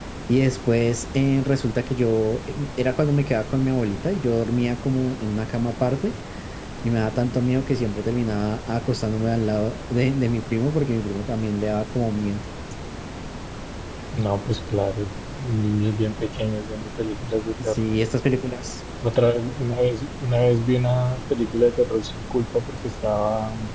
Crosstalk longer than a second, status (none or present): none